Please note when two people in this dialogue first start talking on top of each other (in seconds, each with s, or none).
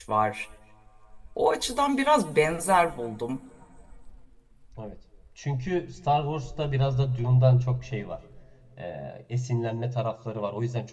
none